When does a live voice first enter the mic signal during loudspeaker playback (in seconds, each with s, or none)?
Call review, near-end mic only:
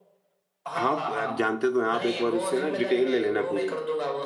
0.7 s